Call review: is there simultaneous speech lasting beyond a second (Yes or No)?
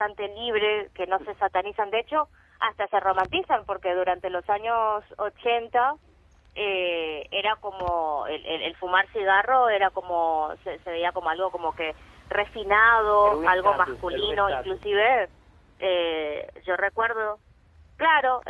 Yes